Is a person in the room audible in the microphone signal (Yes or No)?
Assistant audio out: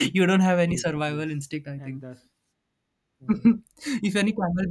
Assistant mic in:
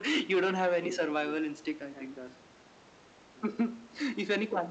No